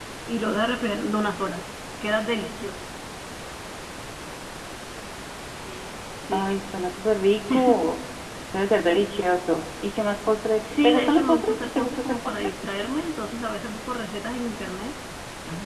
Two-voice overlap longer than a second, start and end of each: 10.6-12.3

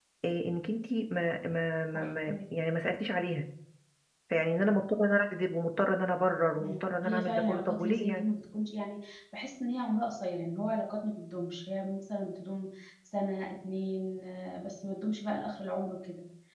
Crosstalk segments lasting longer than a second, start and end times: 6.6-8.2

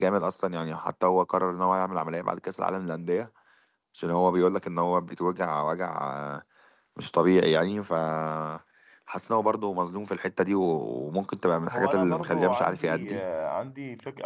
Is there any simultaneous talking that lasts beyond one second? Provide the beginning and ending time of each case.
11.7-13.2

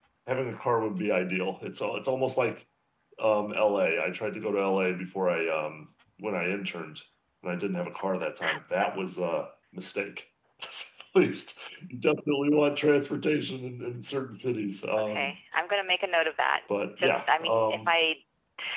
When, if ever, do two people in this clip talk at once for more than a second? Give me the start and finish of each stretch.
16.7-17.9

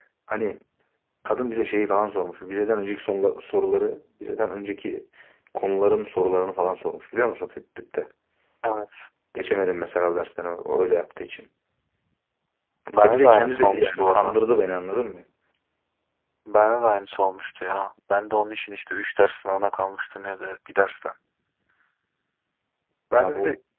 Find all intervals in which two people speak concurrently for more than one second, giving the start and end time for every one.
12.9-14.3

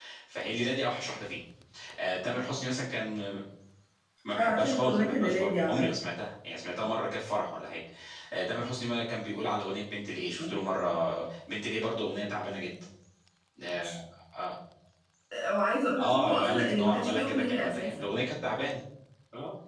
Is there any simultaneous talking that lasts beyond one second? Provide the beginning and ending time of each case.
4.4-5.9, 16.0-18.1

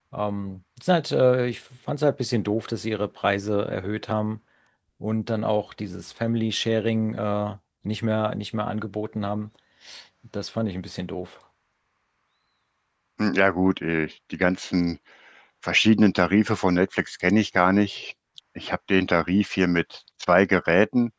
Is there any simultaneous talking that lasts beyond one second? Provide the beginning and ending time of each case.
none

